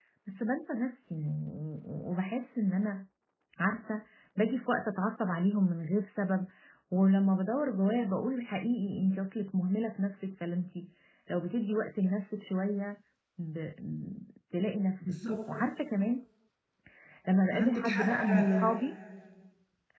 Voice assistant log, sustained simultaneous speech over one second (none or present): present